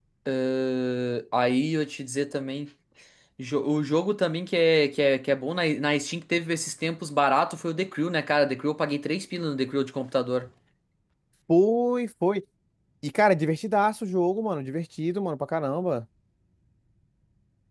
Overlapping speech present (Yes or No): No